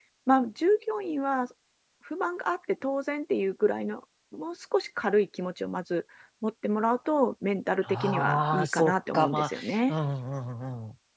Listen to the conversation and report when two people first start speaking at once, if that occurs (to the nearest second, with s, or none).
8 s